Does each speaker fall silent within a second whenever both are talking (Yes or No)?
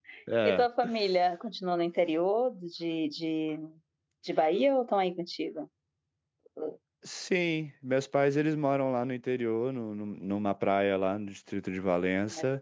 Yes